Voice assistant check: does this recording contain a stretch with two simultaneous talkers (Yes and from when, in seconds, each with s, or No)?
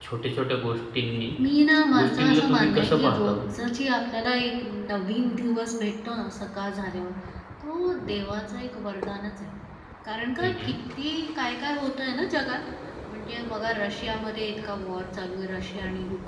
Yes, from 1.9 s